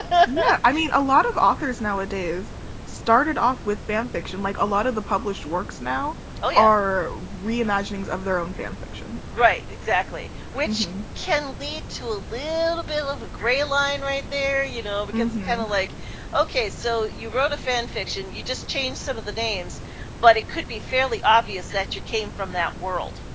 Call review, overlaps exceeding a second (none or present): none